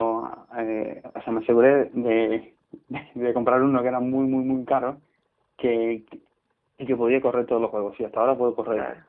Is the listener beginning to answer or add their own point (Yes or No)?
No